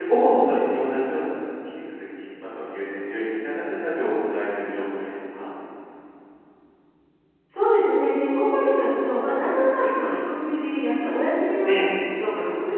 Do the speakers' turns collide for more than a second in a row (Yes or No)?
No